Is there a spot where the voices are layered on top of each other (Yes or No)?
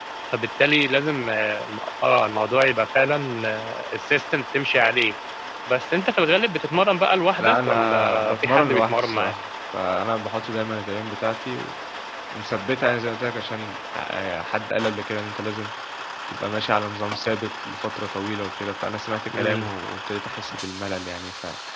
Yes